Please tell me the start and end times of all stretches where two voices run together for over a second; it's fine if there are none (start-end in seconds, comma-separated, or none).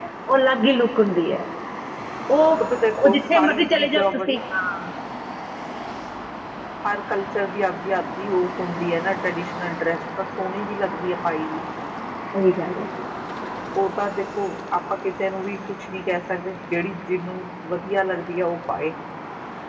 2.7-4.4